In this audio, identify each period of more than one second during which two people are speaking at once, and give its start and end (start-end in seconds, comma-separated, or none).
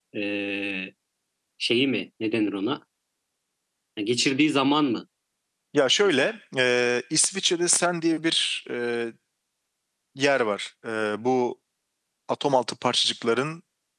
none